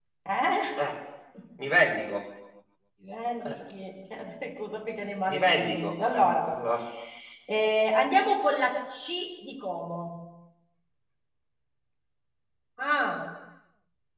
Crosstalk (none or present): present